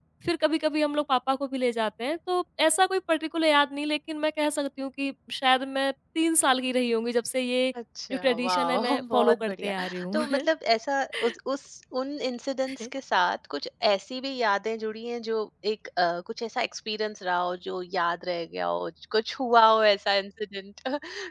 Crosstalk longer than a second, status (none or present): present